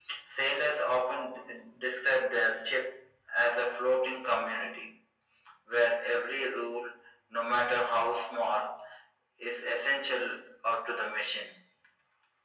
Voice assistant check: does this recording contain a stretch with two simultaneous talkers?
No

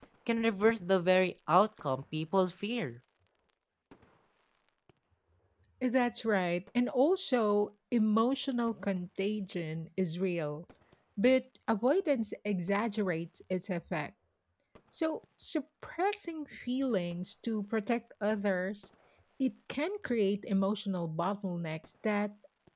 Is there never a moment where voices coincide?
Yes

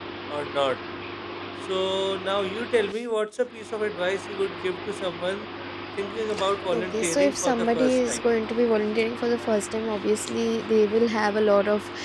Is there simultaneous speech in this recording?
Yes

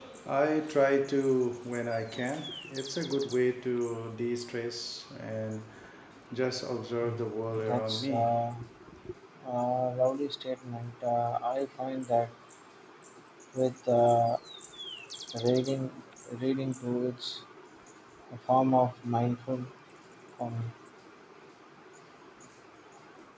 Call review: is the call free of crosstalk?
No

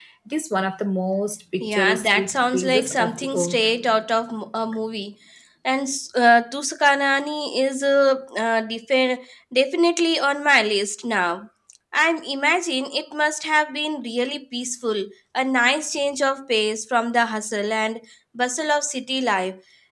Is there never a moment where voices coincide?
No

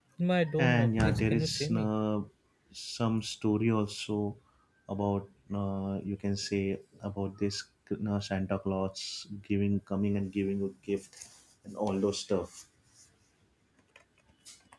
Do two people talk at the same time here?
Yes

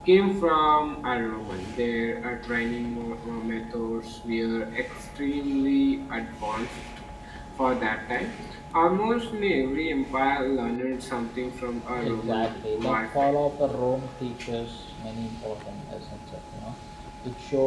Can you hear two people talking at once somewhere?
Yes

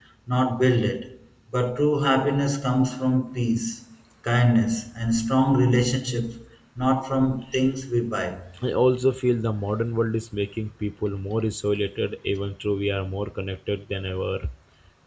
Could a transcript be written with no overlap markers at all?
Yes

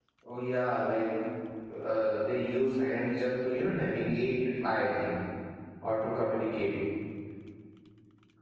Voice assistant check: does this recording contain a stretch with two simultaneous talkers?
No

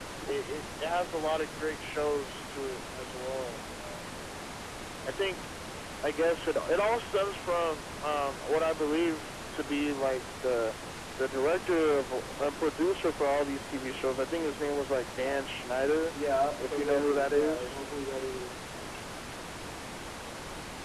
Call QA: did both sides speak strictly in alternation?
No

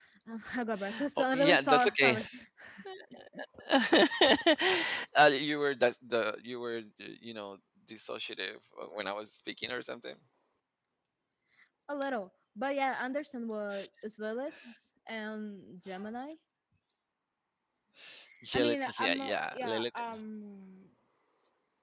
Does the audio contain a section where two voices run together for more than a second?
Yes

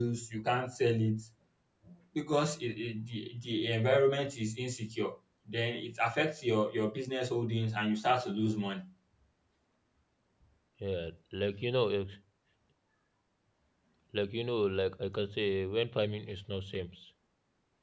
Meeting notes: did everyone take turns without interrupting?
Yes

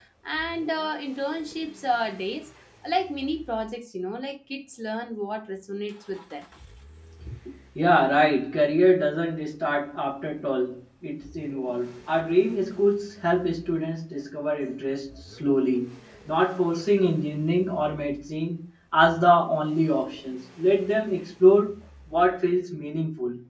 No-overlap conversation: Yes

